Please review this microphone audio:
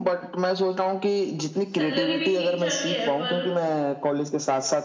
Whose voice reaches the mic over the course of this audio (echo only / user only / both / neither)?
both